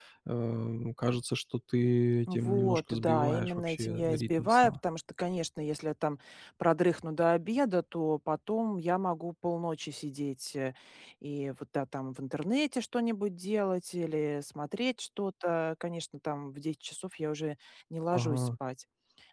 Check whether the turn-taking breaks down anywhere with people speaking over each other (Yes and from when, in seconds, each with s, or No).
Yes, from 2.3 s